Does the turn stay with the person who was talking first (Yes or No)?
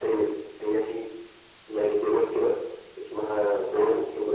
Yes